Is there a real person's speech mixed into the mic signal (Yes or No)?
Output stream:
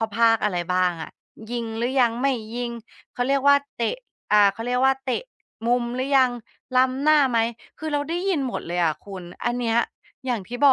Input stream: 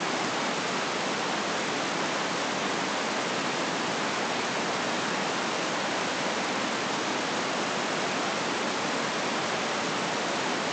No